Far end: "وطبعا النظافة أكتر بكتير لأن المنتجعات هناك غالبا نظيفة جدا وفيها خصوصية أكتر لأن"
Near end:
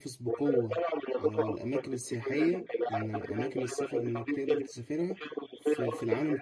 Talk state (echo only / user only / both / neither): both